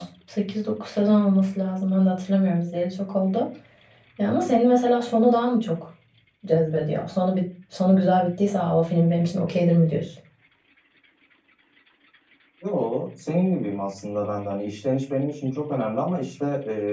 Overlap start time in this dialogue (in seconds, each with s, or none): none